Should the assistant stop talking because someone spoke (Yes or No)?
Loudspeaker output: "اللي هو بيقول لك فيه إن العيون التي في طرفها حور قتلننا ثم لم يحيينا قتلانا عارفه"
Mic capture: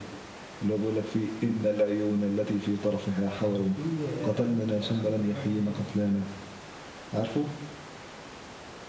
Yes